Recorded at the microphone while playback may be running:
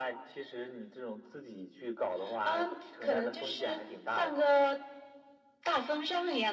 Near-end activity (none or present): none